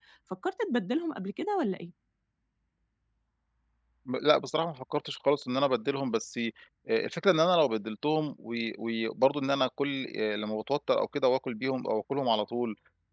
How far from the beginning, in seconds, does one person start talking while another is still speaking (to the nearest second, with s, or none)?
none